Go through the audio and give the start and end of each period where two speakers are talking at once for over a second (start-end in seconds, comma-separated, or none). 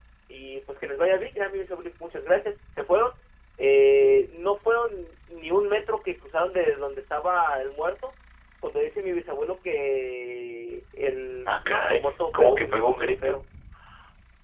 11.5-13.4